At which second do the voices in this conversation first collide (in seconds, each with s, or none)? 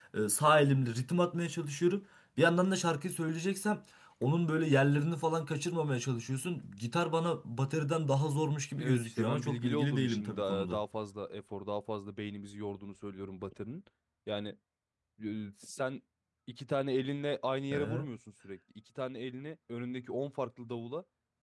8.8 s